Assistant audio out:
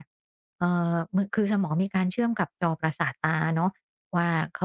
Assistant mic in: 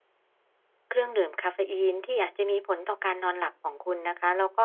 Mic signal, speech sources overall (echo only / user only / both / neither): user only